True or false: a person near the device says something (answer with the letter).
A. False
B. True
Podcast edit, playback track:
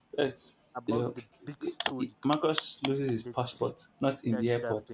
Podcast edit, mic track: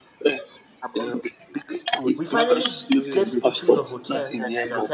B